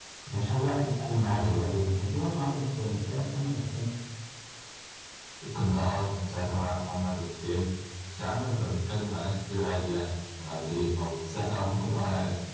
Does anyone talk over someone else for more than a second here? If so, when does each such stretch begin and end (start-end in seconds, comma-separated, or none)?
none